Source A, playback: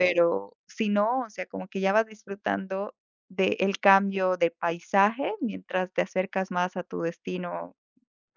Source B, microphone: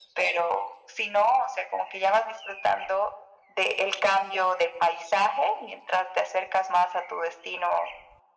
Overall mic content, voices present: echo only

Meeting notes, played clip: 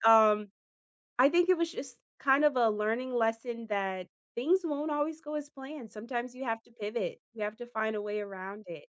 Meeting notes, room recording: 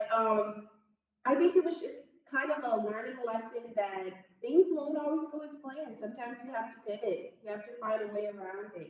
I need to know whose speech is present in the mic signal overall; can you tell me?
echo only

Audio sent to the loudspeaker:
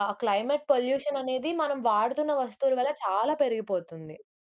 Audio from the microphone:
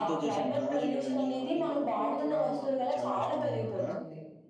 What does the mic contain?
both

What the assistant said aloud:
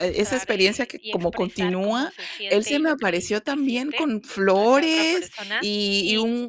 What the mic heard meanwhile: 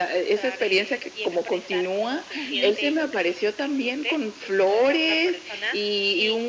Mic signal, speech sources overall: both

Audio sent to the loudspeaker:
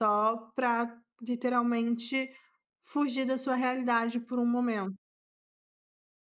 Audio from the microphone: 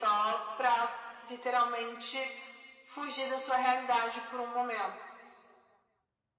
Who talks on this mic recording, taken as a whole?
echo only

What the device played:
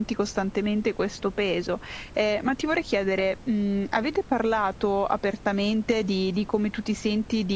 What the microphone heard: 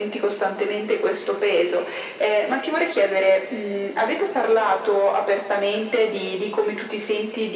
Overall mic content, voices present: echo only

